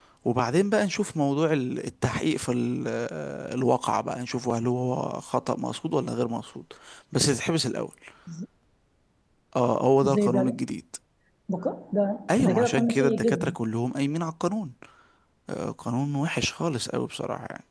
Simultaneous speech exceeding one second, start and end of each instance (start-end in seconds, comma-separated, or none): 12.3-13.6